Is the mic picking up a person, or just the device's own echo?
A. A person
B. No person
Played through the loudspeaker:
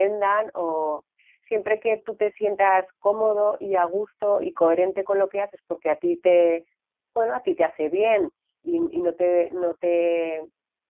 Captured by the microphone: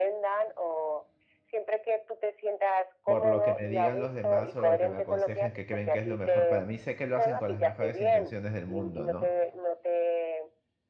A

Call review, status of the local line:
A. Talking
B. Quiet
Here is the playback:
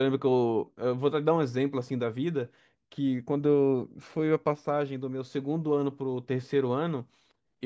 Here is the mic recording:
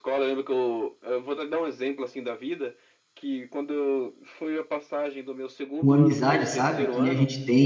A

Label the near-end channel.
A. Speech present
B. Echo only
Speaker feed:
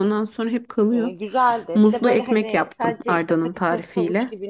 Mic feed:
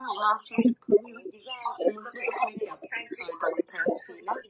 B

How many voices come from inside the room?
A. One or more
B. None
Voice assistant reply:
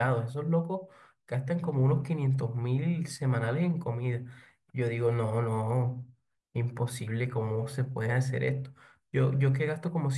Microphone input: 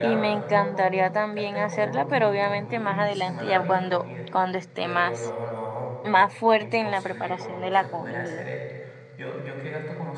A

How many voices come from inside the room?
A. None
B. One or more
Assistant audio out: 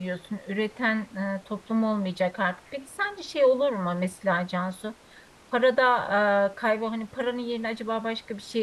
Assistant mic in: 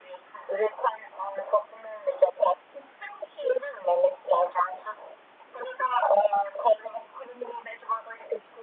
A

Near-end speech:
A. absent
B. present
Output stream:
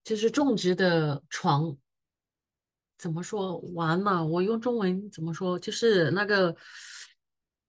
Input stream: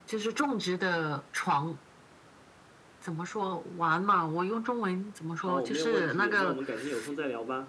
B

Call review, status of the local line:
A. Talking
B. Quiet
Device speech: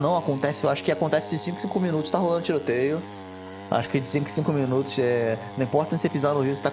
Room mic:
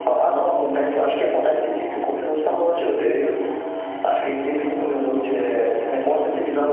B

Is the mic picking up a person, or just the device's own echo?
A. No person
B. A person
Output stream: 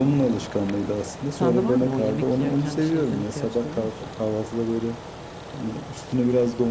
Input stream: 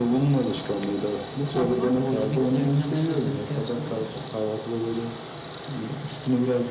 A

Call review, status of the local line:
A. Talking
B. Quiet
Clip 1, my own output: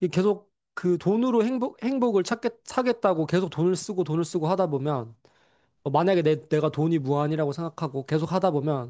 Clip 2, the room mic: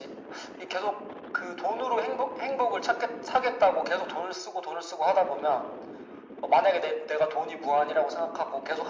B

